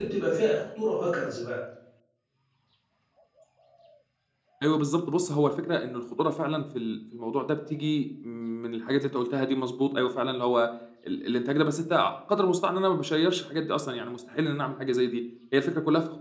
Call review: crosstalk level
none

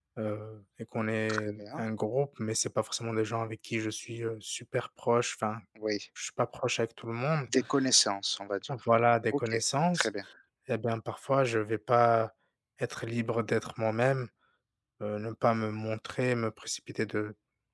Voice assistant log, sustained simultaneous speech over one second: none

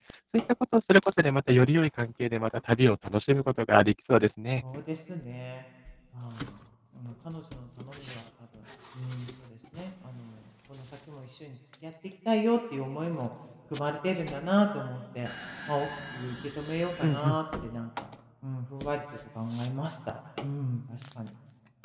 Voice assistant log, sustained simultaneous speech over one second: none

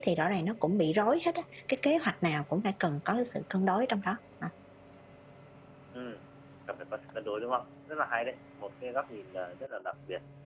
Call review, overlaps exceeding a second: none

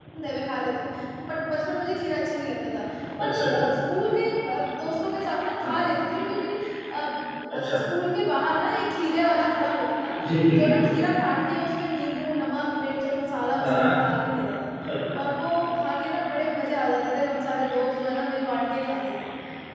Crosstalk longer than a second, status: none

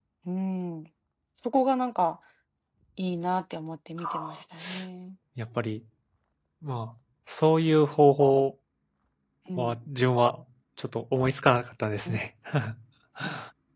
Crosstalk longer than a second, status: none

